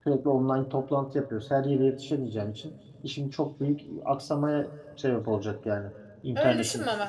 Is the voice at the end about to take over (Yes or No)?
Yes